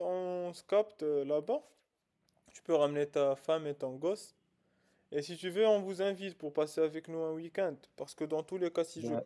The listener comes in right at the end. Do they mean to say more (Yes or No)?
No